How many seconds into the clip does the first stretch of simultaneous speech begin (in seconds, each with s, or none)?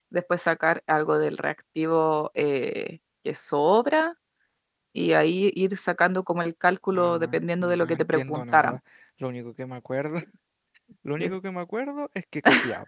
6.9 s